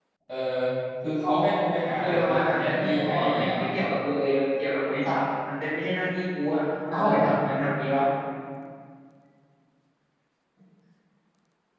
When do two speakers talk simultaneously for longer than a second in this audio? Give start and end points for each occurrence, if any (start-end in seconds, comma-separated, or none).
2.0-3.6